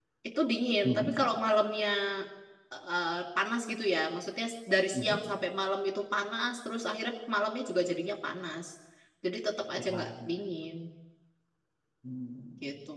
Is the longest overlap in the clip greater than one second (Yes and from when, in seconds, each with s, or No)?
No